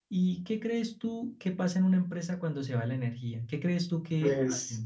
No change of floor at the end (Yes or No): No